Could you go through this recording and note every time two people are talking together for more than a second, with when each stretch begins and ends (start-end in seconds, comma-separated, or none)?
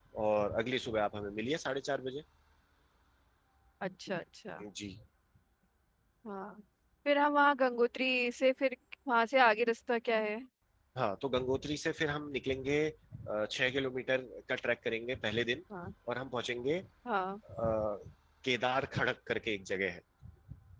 none